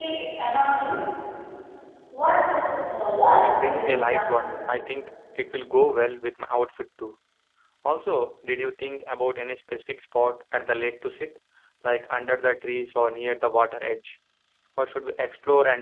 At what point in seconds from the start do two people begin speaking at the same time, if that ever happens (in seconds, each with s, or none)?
3.2 s